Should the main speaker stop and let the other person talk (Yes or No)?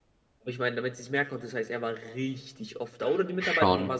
No